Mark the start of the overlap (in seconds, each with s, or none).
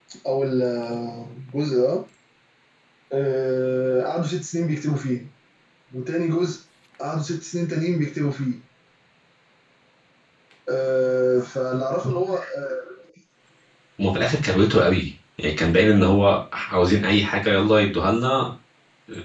none